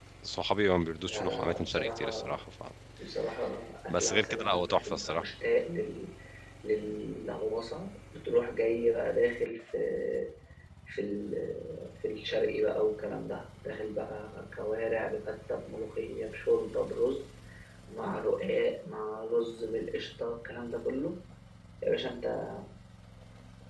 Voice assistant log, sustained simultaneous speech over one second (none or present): present